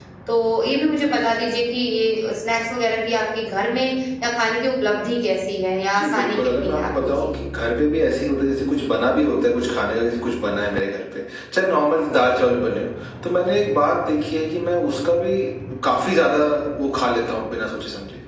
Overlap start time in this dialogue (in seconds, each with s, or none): 6.0 s